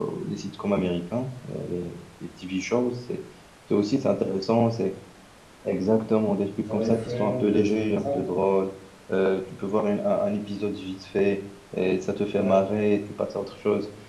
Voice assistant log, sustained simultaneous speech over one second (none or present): present